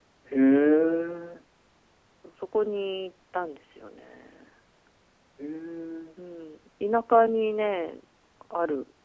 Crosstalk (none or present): none